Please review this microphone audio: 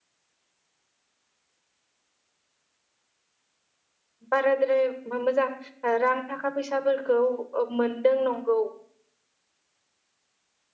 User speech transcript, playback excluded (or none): बाराद्राय बे मोजां रां थाखा फैसाफोरखौ। ओब मोनदों नंगौ